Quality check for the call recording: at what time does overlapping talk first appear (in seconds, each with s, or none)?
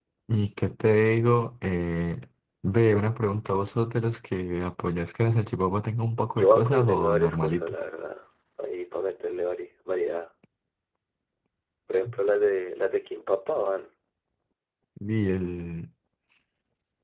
6.3 s